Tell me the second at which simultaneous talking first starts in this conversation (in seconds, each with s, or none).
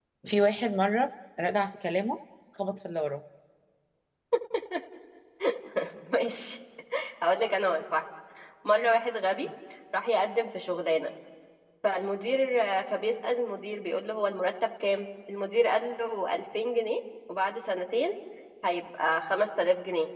none